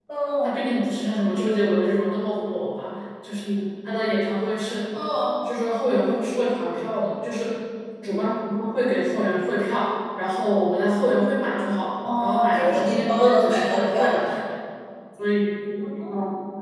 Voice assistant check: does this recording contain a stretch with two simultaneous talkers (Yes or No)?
Yes